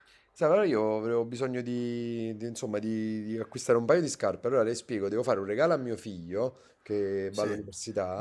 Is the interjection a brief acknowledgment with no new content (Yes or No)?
Yes